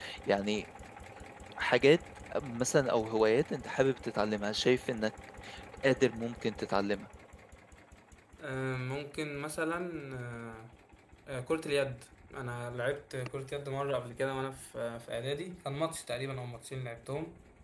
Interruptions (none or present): none